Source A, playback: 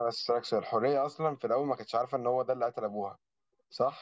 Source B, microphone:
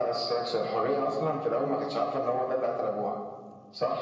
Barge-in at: none

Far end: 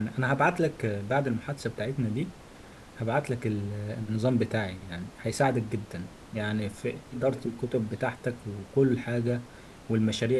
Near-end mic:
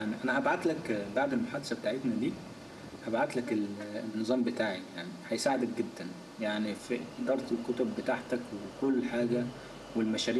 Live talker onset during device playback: 9.2 s

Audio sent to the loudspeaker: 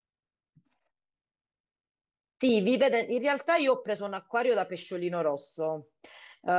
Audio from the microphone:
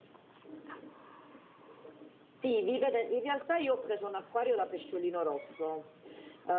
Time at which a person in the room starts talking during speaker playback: none

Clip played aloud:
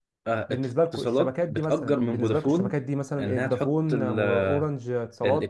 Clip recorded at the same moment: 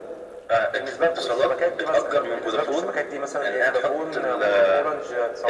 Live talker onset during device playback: none

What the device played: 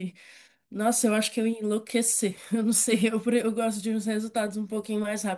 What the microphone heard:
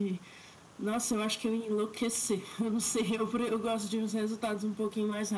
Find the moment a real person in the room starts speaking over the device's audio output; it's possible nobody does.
none

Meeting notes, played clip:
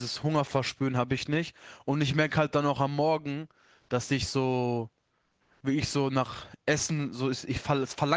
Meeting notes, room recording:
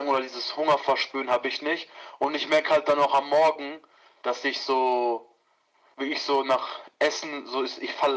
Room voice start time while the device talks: none

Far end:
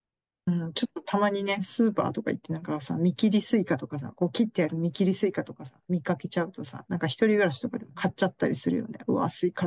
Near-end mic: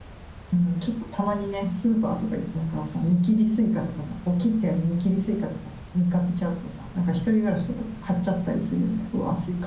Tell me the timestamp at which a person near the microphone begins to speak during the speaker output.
none

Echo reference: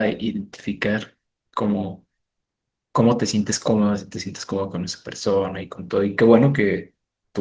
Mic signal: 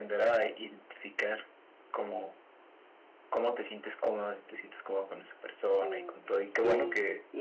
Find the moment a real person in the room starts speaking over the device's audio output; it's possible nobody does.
5.8 s

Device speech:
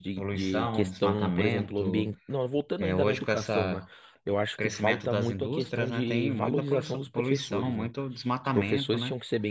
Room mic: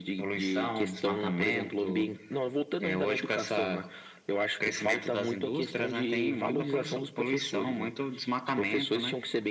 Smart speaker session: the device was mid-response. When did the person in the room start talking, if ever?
none

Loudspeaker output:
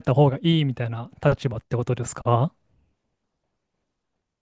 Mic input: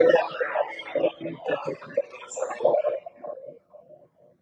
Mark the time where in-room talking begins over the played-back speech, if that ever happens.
none

